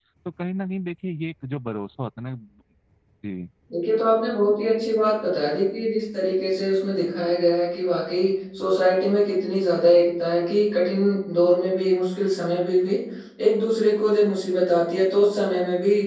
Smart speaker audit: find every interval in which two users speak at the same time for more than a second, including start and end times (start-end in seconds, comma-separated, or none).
none